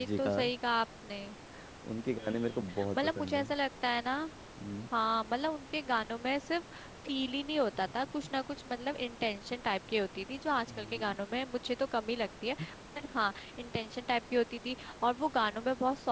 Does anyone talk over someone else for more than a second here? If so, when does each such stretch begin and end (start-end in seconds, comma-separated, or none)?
2.2-3.5